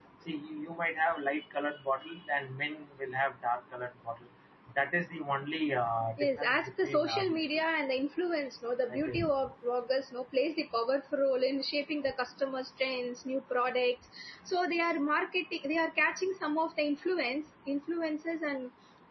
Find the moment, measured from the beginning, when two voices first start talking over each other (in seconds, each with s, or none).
6.2 s